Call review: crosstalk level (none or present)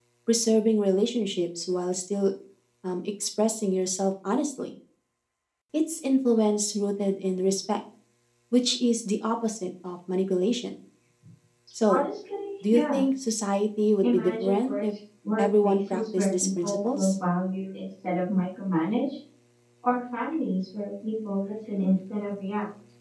present